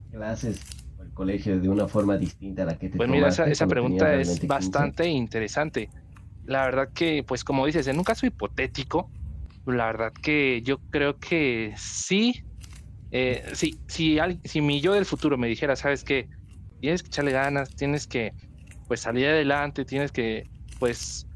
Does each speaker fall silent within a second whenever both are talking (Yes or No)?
No